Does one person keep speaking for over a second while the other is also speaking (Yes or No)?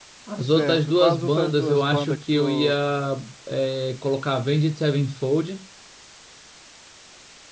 Yes